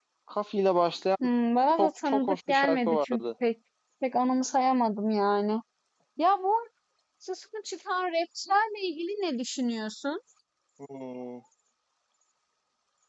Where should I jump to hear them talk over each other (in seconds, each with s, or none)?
1.8 s